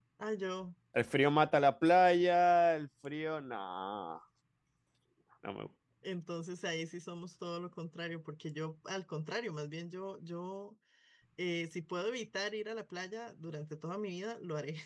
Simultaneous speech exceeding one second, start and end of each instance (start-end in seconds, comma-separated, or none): none